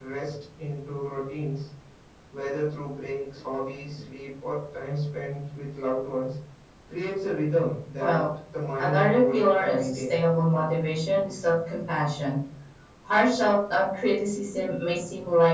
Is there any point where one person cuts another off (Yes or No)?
Yes